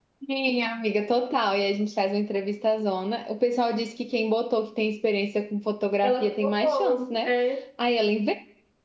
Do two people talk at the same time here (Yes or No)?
Yes